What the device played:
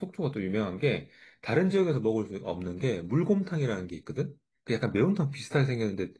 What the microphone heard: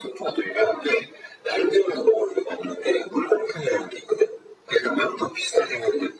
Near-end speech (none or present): none